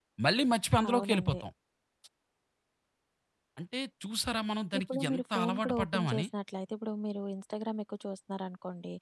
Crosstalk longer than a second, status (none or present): present